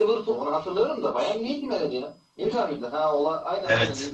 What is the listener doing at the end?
taking over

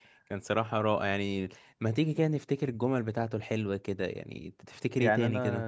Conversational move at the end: taking over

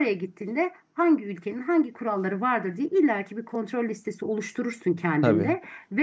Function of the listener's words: listening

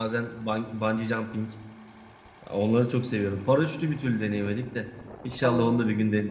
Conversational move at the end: taking over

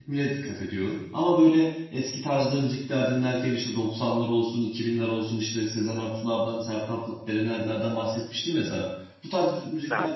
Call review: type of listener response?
listening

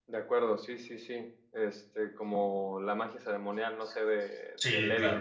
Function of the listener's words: taking over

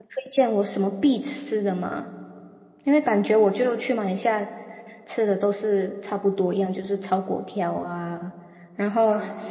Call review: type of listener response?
listening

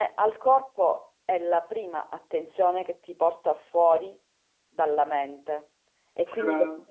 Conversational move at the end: listening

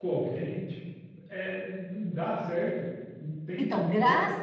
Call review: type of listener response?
taking over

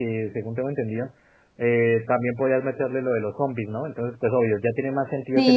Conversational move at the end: taking over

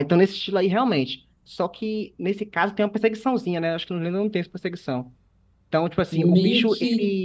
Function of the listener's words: taking over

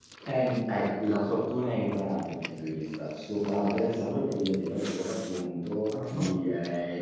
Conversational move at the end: listening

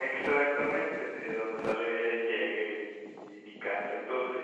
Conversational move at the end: taking over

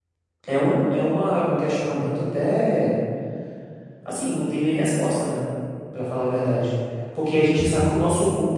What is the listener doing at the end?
listening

